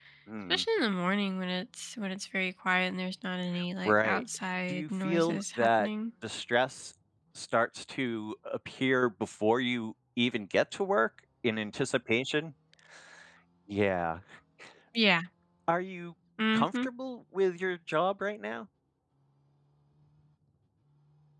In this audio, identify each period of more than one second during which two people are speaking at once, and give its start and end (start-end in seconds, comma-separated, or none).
4.7-5.9